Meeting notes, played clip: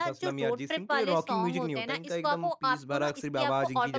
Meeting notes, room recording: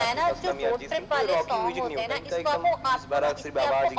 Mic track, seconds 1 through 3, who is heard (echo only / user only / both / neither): echo only